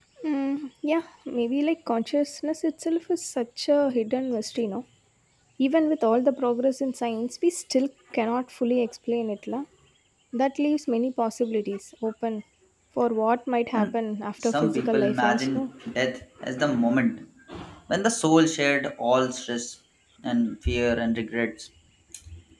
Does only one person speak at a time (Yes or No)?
No